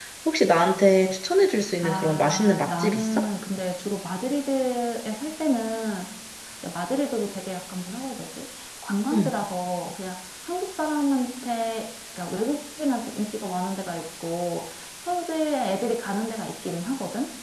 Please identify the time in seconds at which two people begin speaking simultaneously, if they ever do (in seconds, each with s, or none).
1.8 s